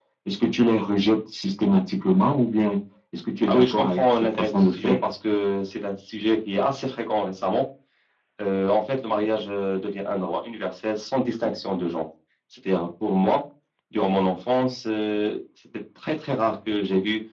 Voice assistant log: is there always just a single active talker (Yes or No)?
No